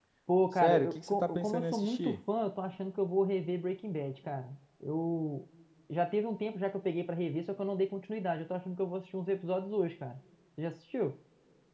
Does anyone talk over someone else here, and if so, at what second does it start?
0.6 s

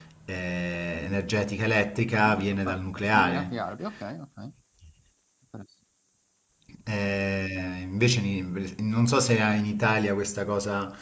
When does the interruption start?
2.1 s

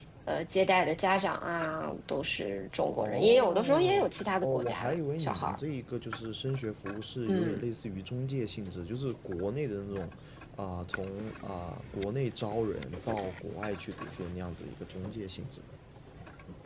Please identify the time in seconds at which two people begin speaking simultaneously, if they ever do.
2.9 s

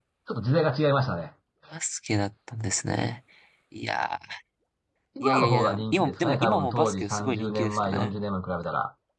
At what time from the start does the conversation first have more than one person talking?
5.2 s

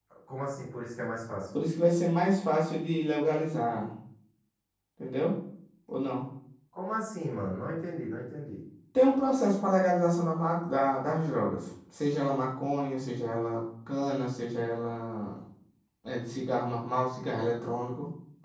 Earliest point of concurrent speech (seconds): none

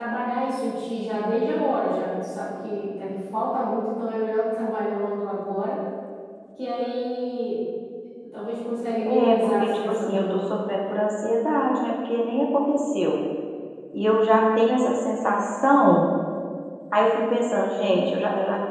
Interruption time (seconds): 9.1 s

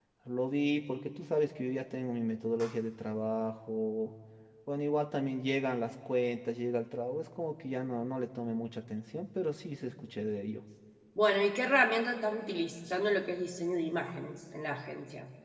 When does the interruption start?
none

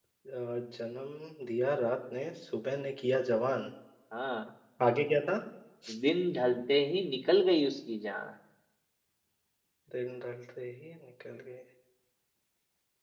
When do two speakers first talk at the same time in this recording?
none

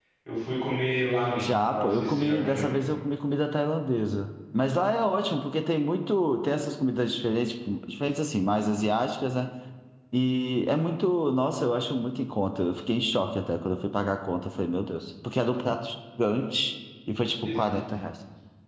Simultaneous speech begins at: 1.4 s

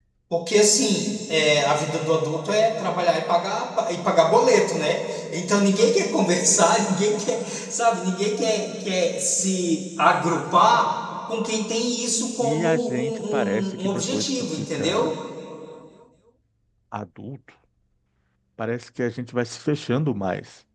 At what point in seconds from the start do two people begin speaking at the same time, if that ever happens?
12.4 s

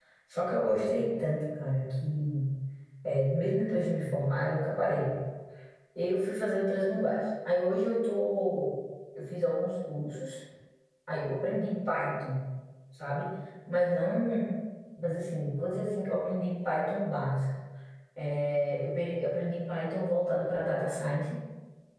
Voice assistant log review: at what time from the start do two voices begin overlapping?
none

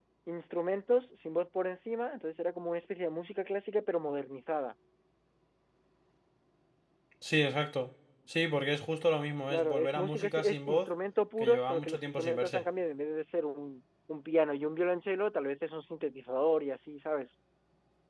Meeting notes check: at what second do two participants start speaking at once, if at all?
9.5 s

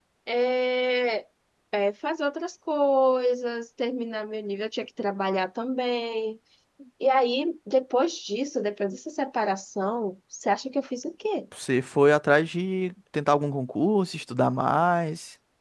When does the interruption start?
none

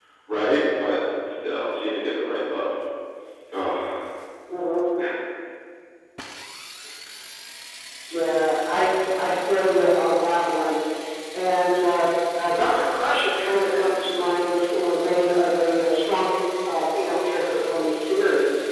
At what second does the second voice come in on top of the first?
none

